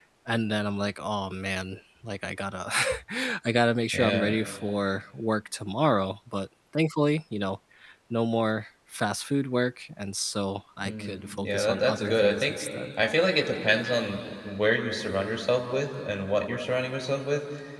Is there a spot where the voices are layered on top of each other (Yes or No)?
Yes